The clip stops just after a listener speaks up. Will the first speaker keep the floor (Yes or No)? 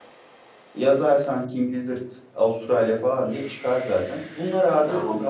Yes